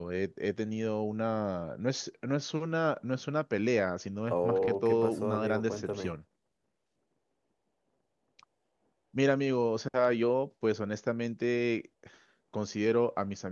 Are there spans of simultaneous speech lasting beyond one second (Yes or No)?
Yes